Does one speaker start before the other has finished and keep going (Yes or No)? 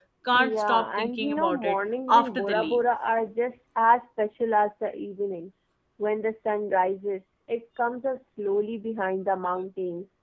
Yes